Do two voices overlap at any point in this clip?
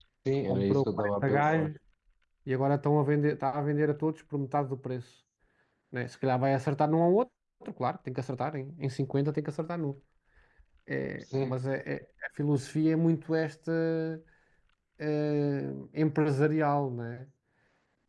Yes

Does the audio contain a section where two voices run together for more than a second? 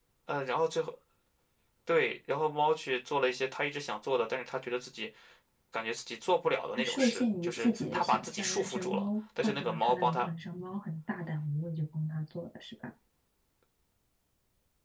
Yes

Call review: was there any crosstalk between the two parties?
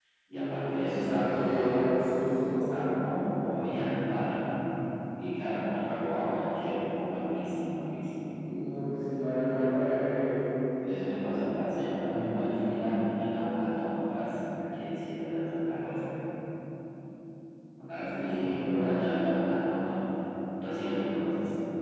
Yes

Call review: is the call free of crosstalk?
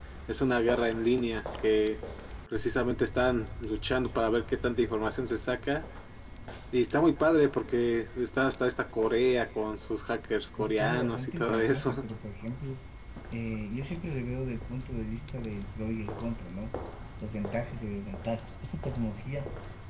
No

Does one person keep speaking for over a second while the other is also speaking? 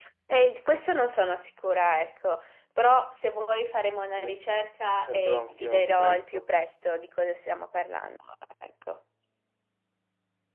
Yes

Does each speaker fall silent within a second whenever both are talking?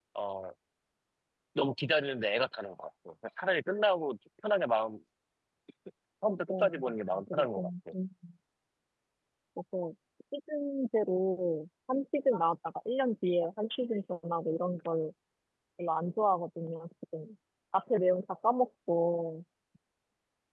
No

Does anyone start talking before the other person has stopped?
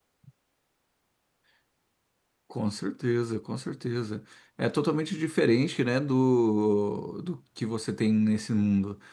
No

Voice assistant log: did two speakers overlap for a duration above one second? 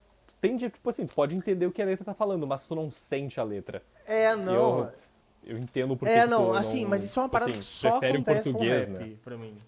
Yes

